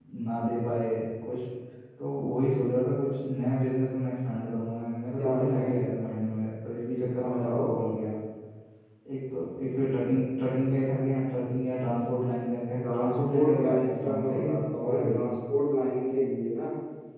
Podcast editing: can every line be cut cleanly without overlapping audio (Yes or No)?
No